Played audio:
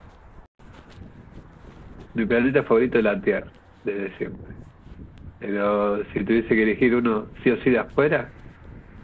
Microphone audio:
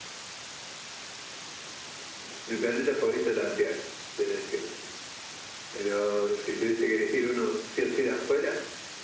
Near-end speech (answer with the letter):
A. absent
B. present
A